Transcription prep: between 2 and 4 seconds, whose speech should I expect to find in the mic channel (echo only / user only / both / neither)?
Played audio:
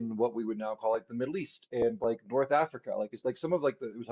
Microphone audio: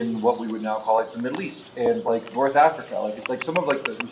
echo only